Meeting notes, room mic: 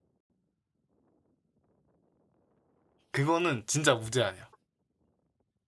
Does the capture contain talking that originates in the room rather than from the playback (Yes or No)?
Yes